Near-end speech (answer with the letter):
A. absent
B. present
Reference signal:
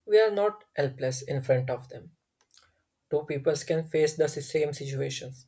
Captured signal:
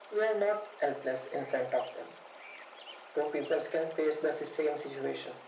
A